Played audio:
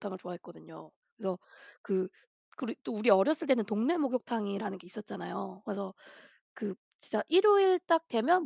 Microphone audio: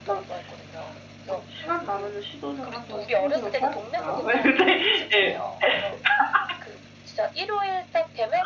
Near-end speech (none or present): present